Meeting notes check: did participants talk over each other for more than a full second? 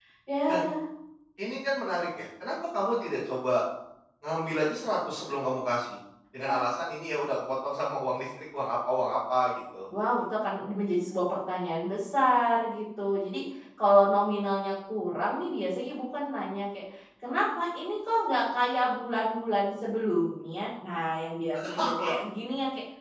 No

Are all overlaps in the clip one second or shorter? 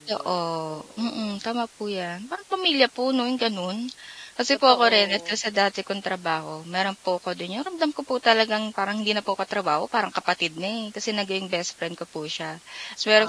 No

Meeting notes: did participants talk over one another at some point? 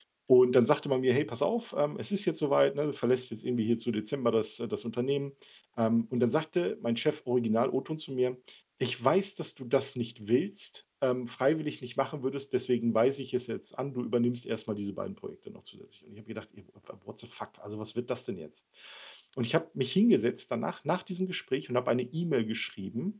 No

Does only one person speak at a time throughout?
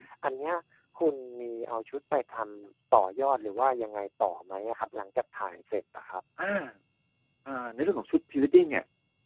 Yes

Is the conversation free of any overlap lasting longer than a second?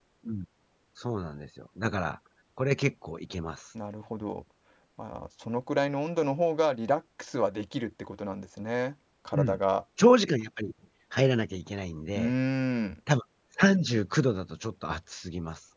Yes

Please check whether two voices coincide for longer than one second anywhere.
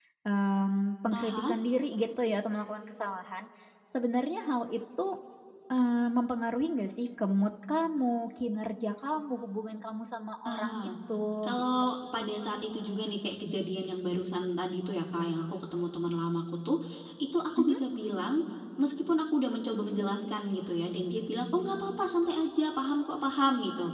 No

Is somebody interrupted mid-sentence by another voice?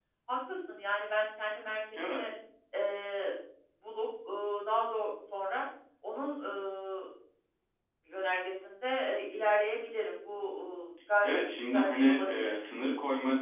Yes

